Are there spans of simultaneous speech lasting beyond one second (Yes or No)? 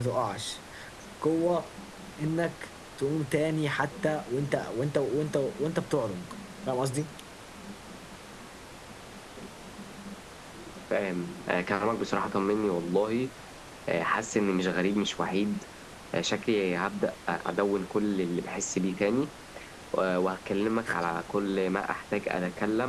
No